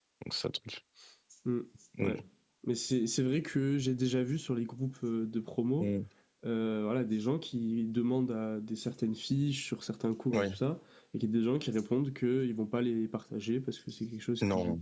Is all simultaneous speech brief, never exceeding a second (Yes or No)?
Yes